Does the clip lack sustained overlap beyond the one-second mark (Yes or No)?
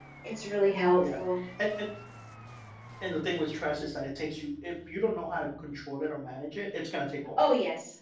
Yes